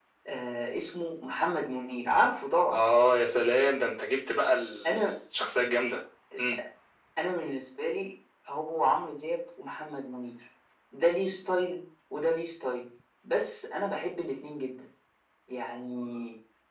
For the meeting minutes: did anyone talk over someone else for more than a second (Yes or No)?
No